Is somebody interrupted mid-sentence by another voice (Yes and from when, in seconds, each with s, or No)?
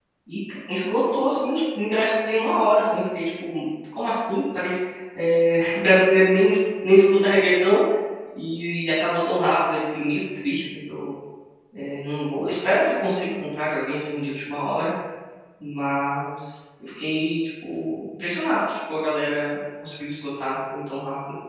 No